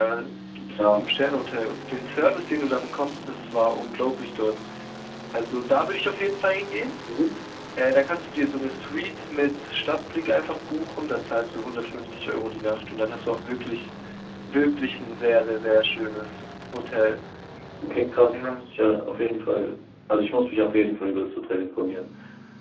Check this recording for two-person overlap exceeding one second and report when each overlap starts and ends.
none

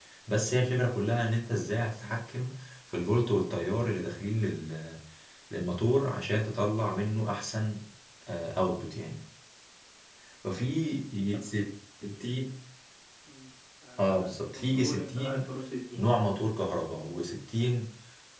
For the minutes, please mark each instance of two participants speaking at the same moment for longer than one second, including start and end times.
14.1-15.4

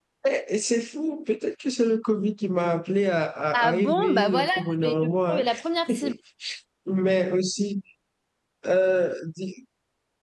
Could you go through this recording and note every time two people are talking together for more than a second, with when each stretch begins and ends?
3.5-5.4

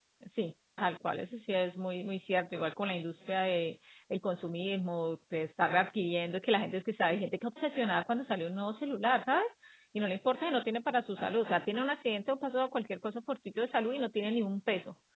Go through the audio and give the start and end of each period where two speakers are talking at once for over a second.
none

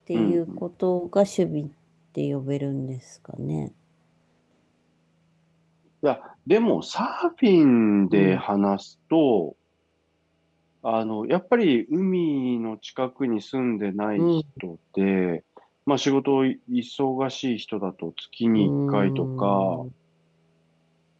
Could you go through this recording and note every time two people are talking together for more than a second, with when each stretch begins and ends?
18.6-19.8

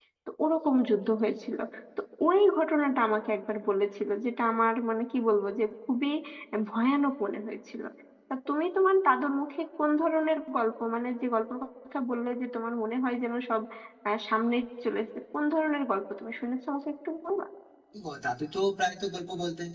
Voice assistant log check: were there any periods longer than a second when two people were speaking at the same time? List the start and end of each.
none

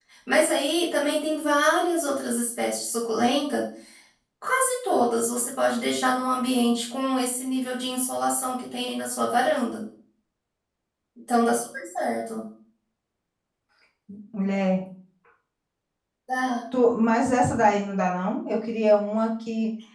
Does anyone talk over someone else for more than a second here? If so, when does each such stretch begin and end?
none

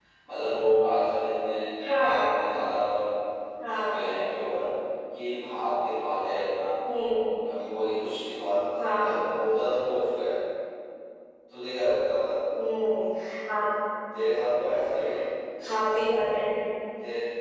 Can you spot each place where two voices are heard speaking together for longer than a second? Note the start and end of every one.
none

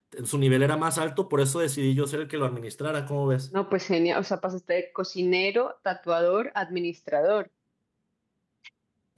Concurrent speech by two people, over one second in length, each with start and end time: none

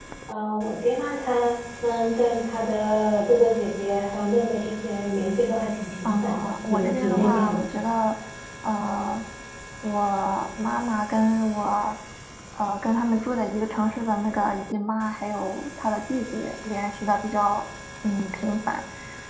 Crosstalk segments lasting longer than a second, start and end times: 6.0-7.6

